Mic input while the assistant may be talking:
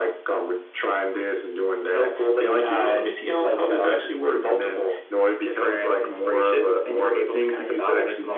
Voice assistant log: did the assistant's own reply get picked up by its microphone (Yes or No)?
Yes